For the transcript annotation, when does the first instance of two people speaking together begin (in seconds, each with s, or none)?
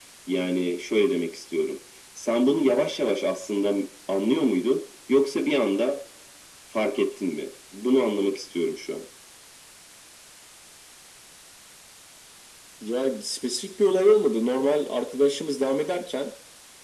none